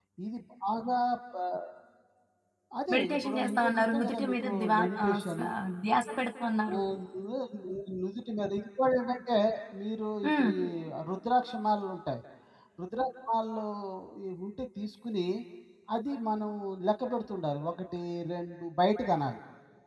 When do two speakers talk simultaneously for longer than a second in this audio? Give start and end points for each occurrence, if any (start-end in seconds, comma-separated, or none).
2.9-5.5